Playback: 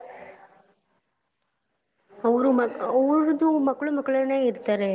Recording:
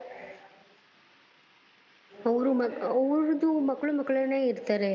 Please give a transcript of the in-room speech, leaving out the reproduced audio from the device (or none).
none